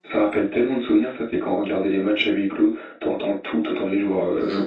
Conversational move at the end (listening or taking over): taking over